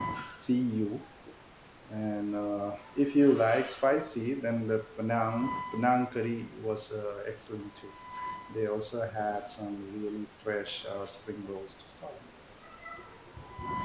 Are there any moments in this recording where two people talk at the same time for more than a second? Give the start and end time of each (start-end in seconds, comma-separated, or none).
none